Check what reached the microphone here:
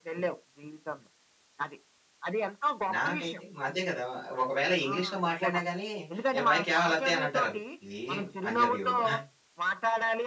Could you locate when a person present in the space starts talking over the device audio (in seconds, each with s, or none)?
2.9 s